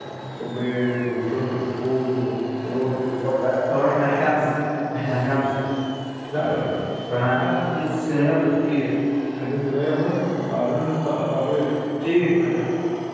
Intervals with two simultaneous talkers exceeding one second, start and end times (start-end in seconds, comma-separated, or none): none